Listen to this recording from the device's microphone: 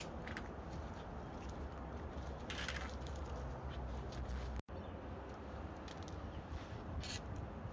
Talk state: neither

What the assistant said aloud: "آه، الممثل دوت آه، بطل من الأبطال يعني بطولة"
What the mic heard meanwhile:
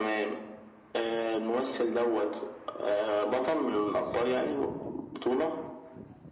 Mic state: echo only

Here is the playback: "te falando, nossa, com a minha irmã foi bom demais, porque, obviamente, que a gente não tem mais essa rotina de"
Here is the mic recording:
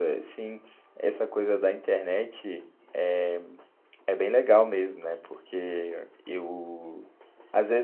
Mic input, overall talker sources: user only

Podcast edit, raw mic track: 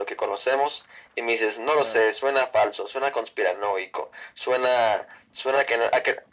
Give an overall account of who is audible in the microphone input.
both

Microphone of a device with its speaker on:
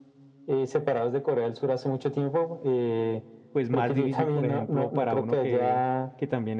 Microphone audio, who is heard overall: both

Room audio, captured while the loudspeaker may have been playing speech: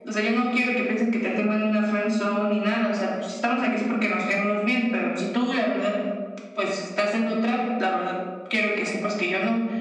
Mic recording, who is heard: echo only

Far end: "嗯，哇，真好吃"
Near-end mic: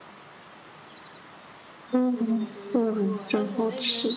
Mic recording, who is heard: both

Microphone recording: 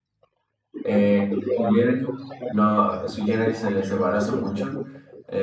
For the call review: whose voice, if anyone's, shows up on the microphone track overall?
both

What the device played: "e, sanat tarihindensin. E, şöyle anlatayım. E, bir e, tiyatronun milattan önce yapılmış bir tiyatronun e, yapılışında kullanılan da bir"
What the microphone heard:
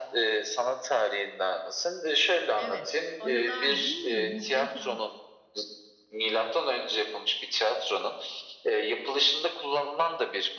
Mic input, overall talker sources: both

